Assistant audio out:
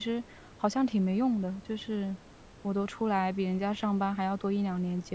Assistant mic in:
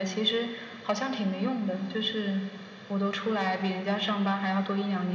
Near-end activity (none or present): none